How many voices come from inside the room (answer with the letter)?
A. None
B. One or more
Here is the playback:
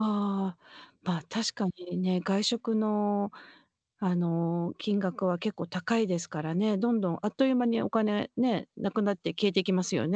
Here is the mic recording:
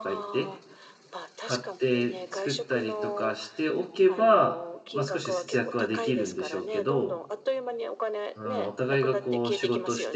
B